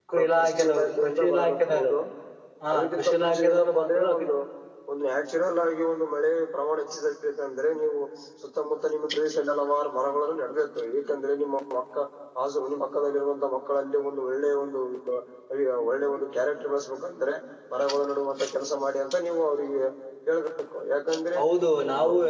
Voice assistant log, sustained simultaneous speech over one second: present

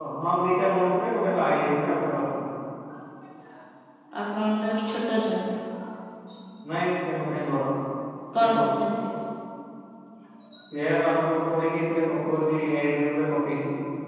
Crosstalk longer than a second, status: none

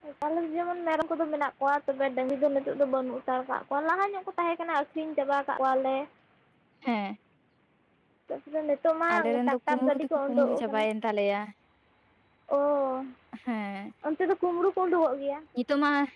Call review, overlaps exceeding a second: present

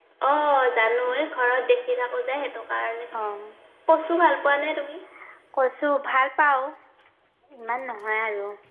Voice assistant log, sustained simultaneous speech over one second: none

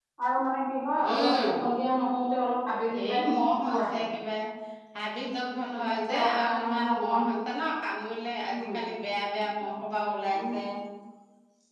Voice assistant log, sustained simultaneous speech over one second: present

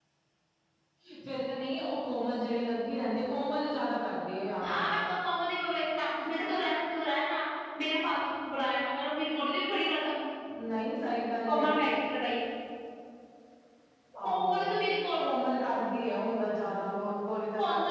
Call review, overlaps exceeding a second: none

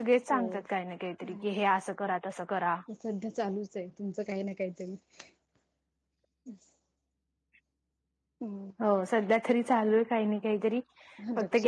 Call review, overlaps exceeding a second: none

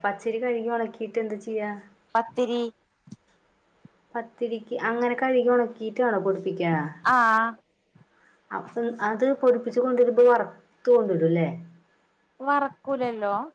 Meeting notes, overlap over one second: none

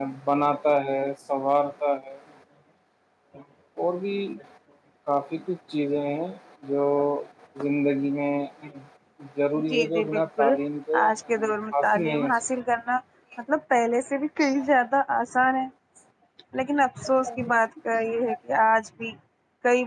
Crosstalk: present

